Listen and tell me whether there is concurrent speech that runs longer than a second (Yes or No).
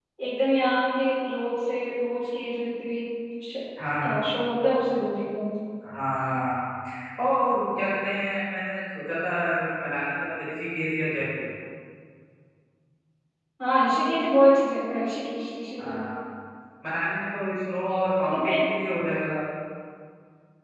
No